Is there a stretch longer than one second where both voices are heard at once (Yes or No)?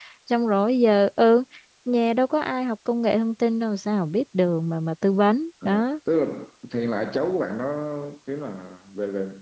No